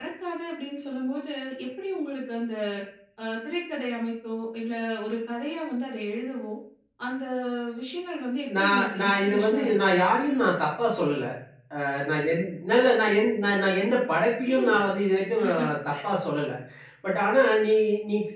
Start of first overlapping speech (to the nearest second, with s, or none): 9 s